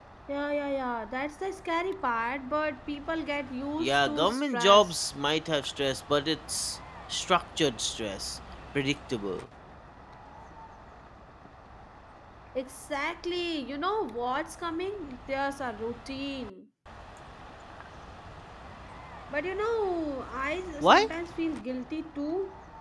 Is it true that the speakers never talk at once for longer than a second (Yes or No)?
No